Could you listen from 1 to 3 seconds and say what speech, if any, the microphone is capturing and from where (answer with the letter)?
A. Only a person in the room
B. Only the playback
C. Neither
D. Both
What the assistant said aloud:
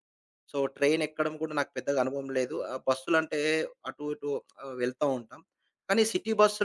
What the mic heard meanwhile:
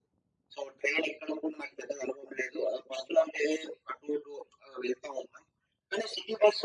B